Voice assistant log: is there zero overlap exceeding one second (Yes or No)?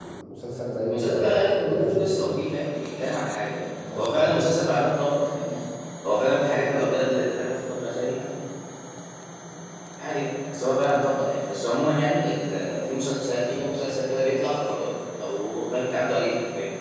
No